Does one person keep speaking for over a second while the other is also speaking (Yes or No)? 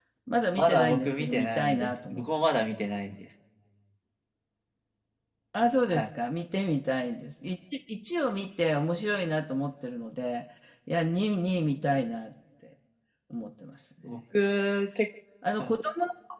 Yes